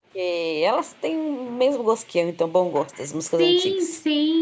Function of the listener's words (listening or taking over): taking over